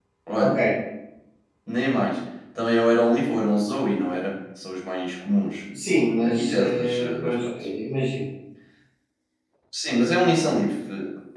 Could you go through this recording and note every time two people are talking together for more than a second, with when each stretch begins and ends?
6.2-7.4

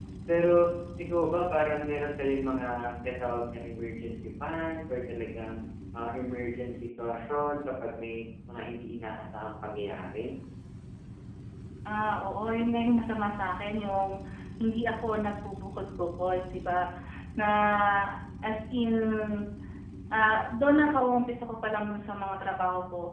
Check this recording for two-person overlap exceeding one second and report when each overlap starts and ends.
none

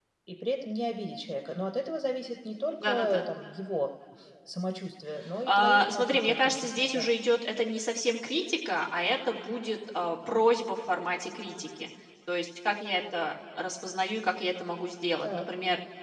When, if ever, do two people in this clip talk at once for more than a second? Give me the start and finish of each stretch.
5.5-7.1

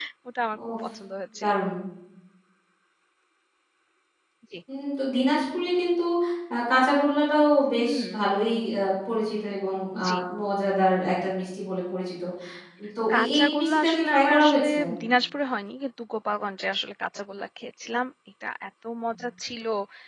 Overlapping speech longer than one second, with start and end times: 13.1-14.7

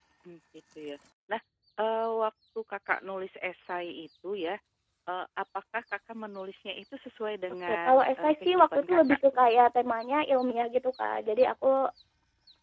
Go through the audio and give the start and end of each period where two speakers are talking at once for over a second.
7.7-9.2

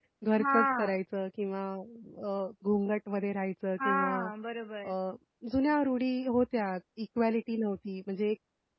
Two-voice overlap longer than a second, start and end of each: none

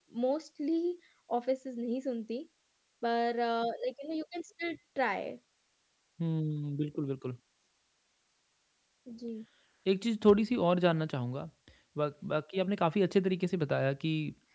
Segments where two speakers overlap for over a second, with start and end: none

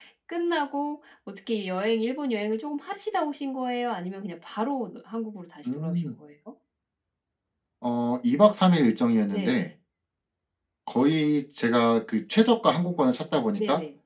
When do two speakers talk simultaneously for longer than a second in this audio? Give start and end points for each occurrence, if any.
none

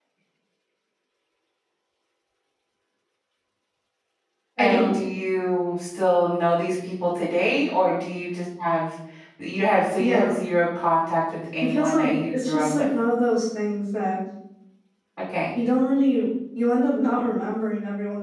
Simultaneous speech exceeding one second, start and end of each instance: 11.6-12.9

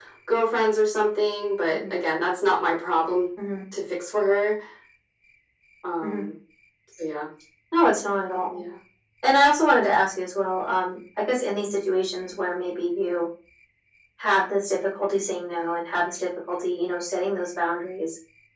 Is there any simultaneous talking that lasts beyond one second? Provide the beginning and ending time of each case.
none

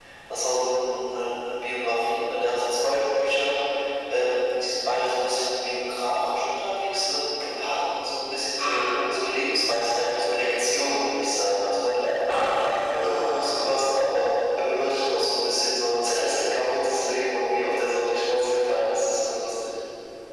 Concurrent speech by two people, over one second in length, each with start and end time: 12.3-13.8

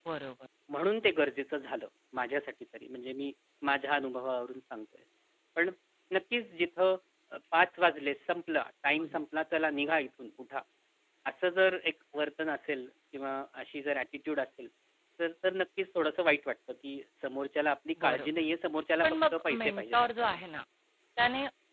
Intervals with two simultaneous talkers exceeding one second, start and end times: 19.0-20.4

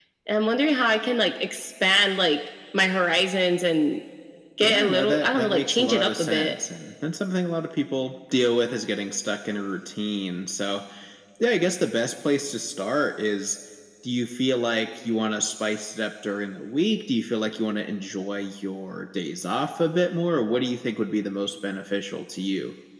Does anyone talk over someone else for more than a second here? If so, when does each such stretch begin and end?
4.6-6.5

